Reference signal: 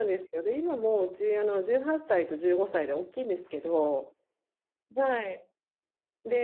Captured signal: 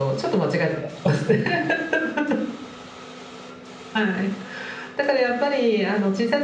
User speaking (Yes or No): Yes